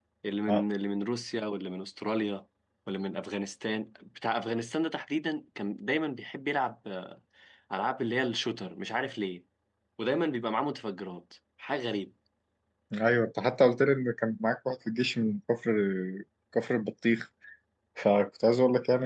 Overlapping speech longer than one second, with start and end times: none

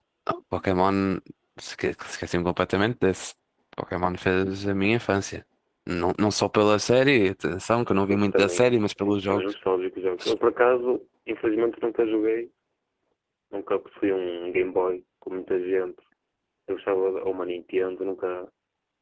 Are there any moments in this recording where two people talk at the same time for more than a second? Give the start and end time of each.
8.1-9.4

